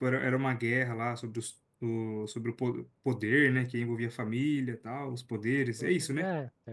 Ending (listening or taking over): taking over